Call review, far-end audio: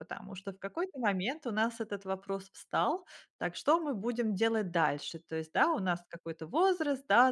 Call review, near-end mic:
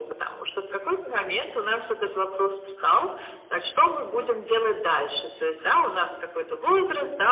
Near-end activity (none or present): none